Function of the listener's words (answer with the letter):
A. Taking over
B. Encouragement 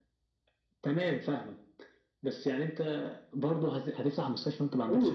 A